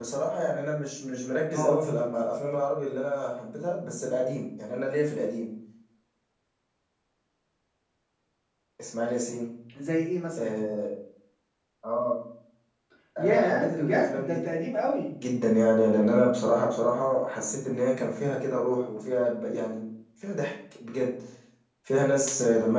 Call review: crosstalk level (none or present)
present